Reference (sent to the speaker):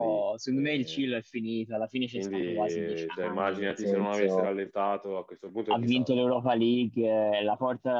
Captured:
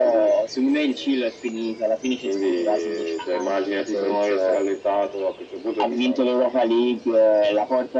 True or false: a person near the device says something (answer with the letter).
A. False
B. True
A